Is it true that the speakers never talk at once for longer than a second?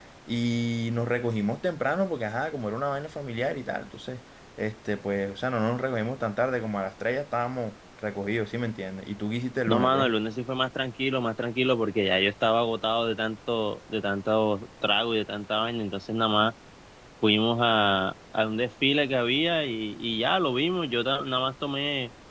Yes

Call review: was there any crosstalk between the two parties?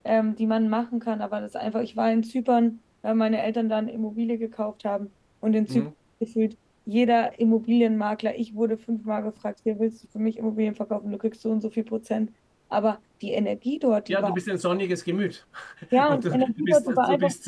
Yes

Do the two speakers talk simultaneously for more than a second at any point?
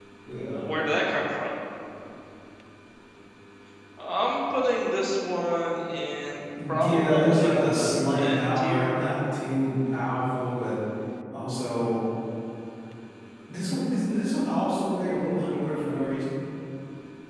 Yes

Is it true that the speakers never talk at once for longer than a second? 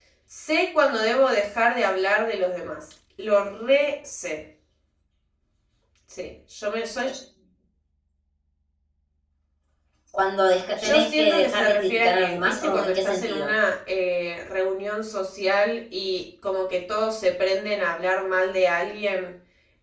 No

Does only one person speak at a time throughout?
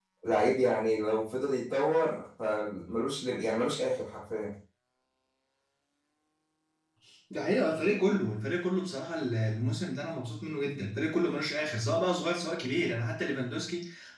Yes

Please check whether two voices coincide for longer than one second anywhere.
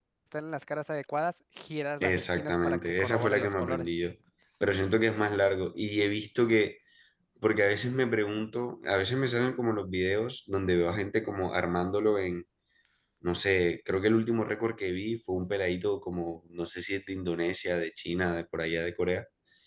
Yes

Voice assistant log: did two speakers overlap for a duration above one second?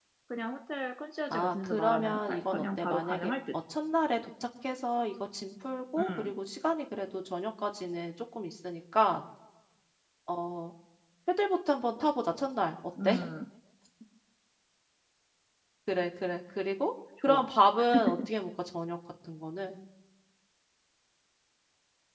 Yes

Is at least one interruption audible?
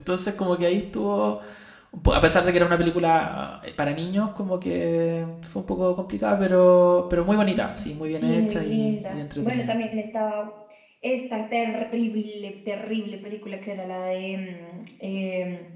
Yes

